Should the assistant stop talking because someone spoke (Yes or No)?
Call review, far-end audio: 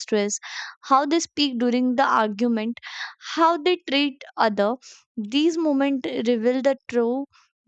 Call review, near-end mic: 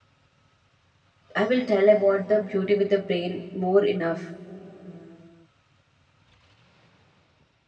Yes